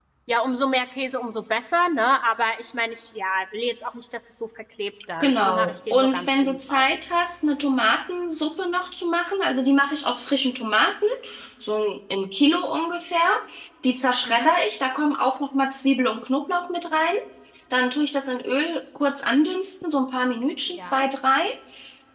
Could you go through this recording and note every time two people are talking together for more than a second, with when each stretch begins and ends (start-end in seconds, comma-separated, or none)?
5.2-6.8